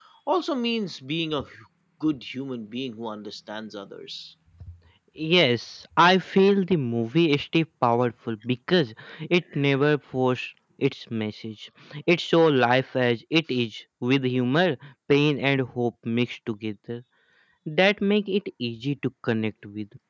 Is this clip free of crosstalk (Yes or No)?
Yes